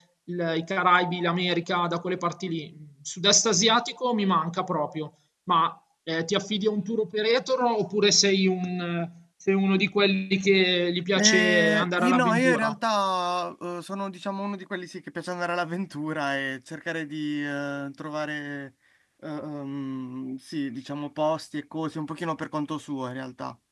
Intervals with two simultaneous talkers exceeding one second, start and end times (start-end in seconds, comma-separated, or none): 11.2-12.8